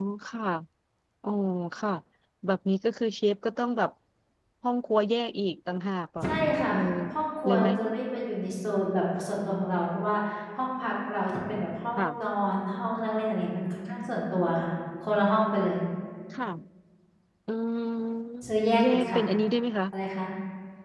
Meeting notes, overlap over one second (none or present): none